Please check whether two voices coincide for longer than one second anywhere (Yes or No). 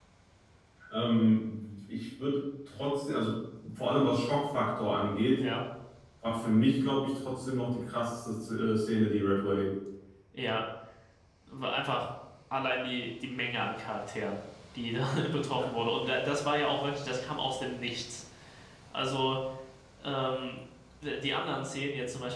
No